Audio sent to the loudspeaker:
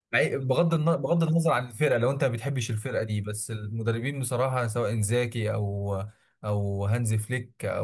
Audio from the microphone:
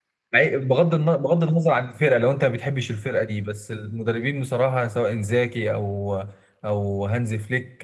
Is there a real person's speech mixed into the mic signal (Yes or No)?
No